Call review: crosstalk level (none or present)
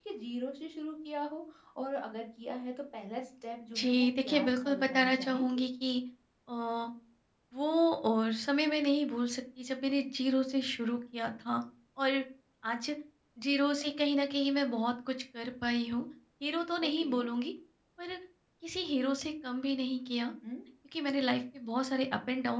present